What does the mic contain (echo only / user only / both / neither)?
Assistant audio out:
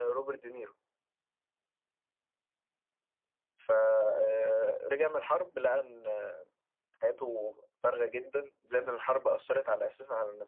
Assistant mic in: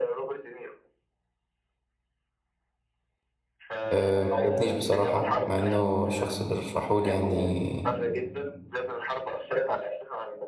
both